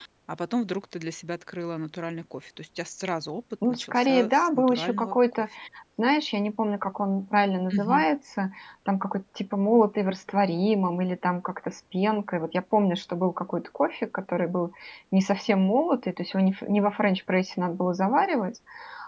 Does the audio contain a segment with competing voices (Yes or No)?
Yes